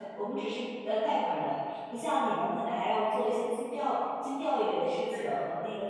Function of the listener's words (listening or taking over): listening